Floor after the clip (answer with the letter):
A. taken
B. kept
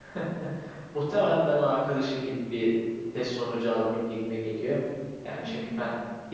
B